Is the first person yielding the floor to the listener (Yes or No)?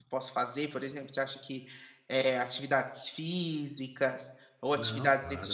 No